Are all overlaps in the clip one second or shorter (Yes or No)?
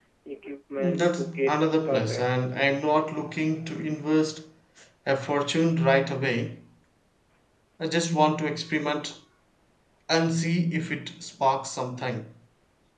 No